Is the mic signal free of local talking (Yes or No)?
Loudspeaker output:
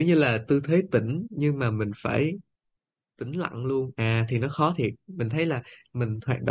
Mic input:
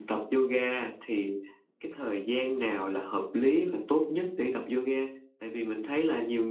No